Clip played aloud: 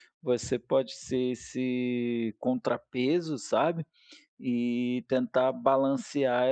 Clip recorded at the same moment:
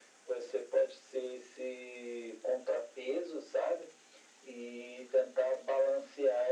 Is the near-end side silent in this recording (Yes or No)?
Yes